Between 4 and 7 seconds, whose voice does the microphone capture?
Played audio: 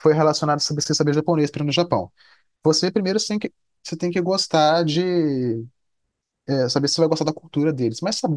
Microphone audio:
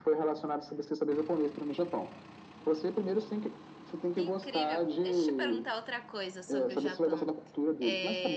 both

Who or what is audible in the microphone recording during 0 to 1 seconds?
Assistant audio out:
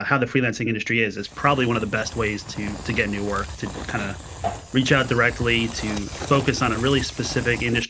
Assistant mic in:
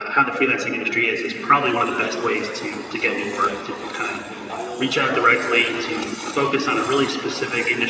echo only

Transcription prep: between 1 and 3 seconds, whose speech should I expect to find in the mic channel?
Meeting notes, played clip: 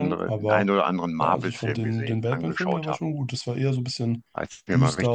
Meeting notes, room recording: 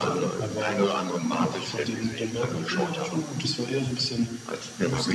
echo only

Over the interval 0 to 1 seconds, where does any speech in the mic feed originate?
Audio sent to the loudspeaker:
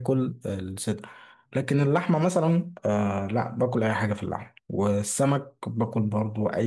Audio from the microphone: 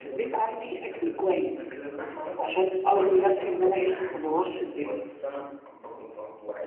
both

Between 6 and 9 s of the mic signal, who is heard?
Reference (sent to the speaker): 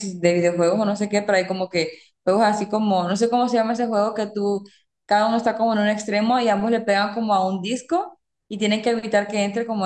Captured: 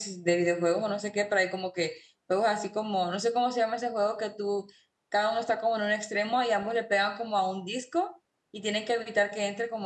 echo only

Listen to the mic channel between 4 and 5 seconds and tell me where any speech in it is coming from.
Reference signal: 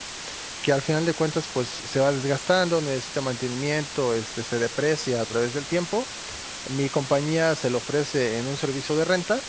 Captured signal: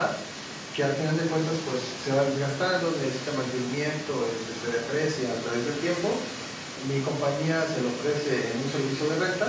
echo only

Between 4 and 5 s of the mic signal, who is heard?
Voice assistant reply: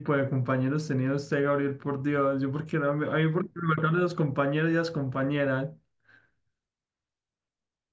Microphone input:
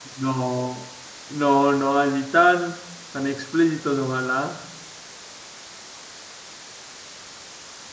user only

